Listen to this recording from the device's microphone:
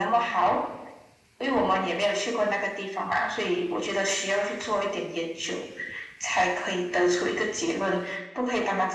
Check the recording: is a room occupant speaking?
No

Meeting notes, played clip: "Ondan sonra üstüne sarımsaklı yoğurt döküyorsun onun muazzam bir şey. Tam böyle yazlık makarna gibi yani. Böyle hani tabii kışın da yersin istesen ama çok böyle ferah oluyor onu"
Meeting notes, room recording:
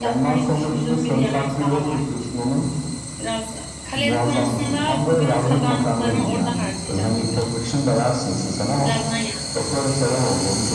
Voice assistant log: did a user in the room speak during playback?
Yes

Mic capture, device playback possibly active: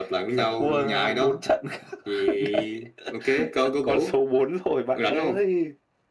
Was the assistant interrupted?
No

